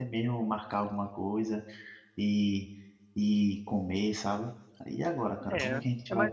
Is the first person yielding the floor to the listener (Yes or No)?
Yes